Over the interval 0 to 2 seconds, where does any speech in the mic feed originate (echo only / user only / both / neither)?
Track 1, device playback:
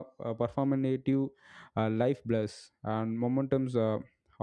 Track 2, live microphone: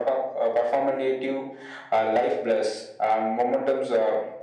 echo only